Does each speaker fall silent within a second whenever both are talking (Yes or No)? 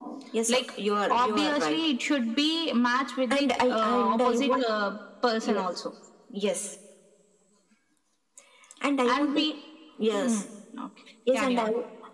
No